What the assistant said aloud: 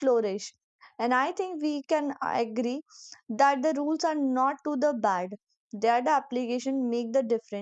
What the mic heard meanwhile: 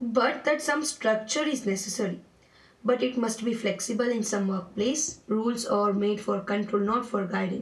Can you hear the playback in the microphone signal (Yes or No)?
No